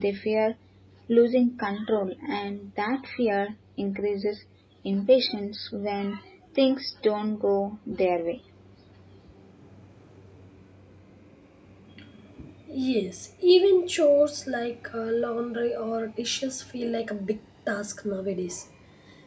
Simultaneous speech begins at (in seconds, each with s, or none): none